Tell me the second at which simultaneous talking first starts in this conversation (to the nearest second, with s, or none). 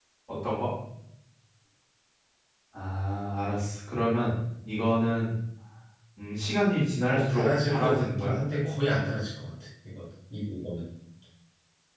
7 s